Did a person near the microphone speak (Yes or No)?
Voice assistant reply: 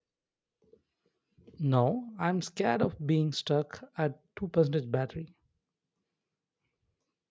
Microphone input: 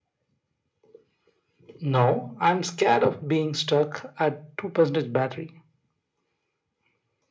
No